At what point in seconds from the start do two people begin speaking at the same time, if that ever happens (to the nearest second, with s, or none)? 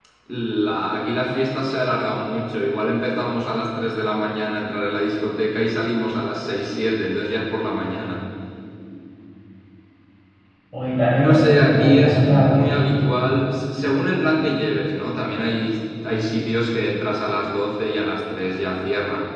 11 s